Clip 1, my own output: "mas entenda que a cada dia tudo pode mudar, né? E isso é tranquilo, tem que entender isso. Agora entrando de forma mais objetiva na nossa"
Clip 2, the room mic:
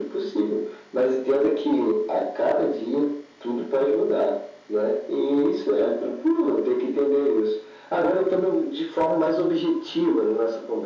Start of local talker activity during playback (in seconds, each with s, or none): none